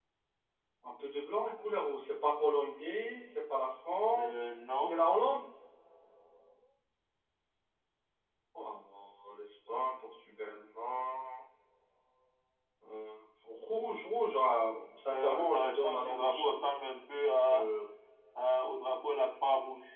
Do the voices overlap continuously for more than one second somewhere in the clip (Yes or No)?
Yes